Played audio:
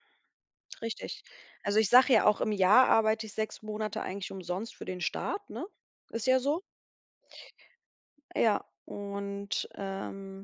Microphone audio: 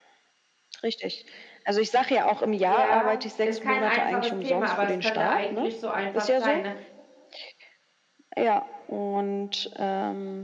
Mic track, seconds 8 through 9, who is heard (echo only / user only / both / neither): echo only